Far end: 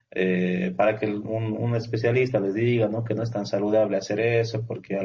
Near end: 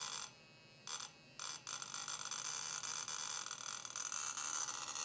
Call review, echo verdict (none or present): none